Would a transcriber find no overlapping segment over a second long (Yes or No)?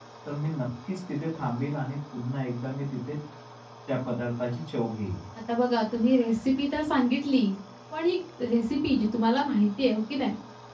Yes